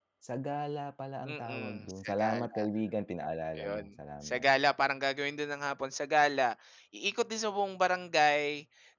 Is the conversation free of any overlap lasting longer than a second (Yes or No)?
No